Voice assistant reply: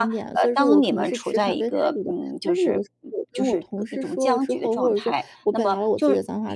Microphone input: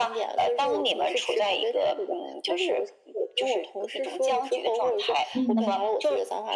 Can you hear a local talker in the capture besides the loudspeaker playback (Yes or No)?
Yes